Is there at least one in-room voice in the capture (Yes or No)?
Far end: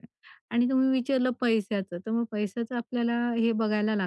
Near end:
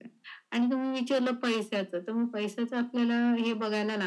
No